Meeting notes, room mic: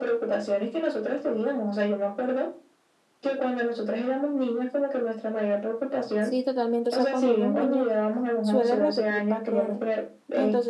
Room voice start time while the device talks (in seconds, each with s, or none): 6.2 s